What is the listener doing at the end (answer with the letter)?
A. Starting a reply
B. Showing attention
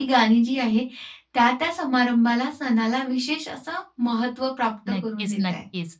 A